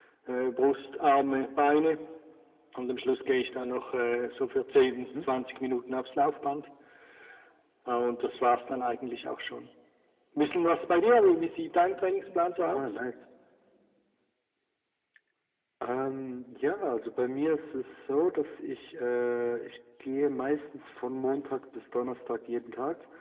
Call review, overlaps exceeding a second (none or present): none